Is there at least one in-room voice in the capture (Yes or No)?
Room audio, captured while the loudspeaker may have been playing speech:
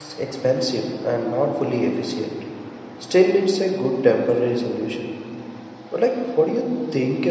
Yes